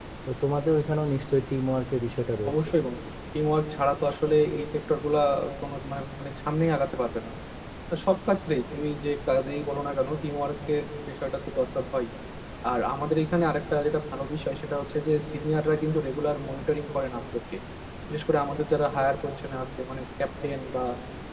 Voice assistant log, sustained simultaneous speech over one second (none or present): none